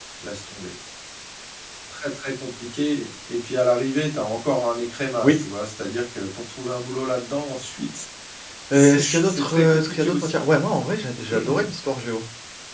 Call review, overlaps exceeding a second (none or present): present